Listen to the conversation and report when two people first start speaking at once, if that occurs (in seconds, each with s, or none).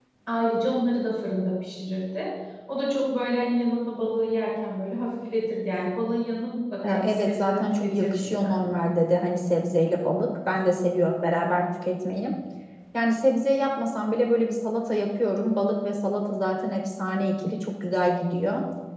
6.8 s